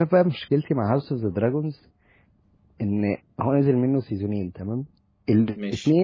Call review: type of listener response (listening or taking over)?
listening